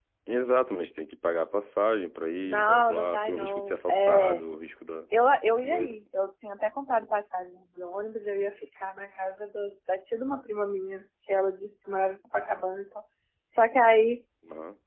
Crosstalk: present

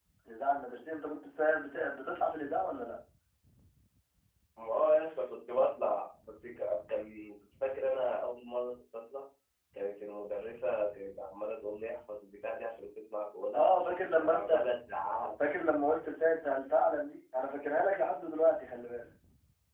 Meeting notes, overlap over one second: none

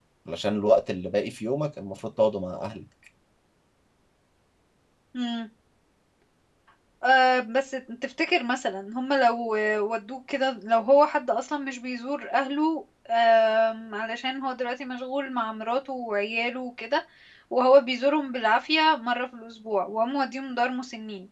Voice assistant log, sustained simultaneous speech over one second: none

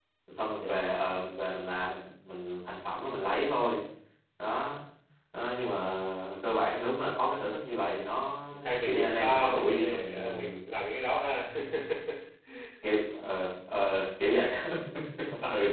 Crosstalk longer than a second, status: present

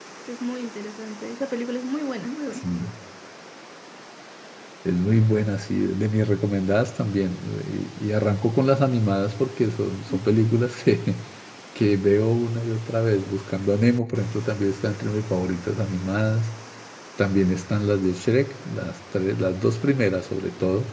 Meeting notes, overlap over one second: none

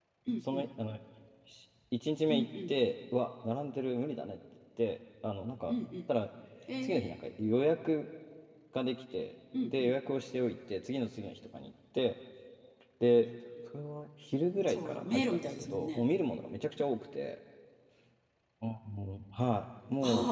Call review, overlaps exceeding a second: present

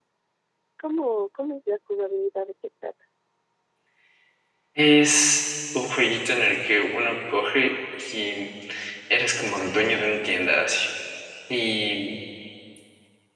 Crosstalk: none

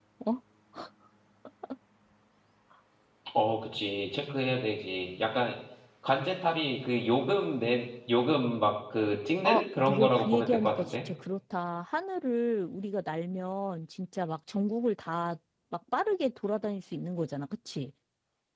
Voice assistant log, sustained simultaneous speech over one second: present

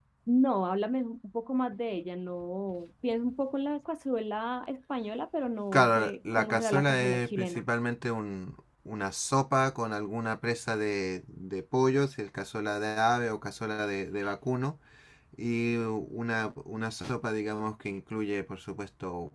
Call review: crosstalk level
present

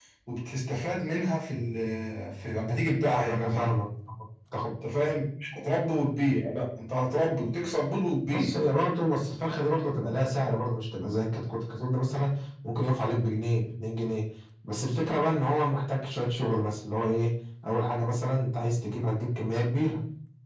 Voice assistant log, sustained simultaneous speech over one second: none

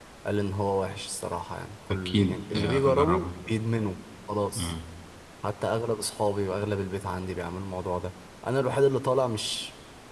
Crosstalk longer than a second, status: present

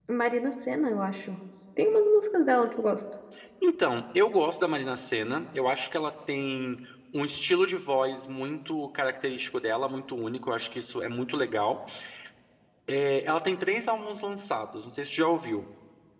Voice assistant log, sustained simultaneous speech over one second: none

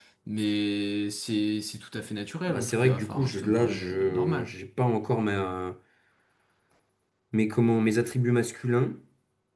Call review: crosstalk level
present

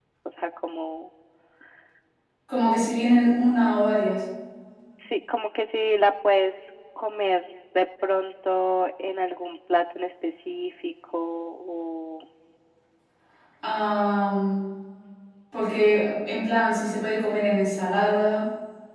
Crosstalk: none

